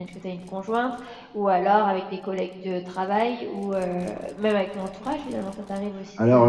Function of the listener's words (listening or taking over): taking over